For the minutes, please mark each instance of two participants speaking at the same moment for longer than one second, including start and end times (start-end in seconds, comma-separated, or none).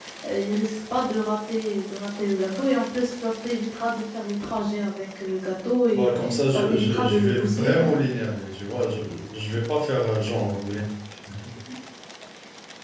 5.9-7.9